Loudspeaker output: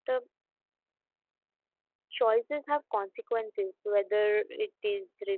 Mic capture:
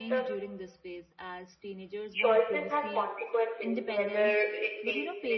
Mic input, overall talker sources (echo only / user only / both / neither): both